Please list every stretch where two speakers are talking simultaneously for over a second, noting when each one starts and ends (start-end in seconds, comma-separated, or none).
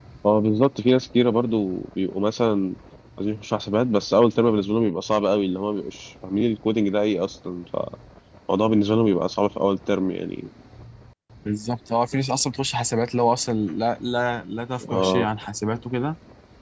none